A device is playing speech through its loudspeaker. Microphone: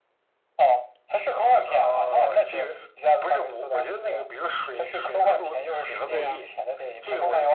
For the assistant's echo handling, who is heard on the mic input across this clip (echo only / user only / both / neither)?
both